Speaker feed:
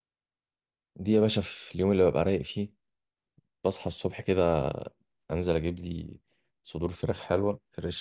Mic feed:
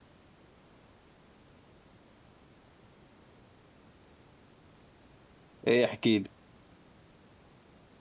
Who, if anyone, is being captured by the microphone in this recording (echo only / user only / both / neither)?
user only